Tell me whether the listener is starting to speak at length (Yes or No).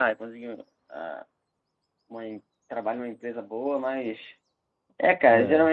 No